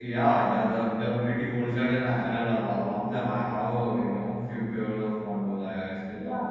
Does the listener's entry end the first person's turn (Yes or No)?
Yes